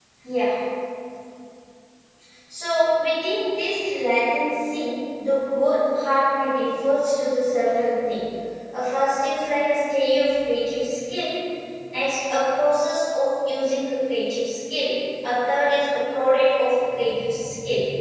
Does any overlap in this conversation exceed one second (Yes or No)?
No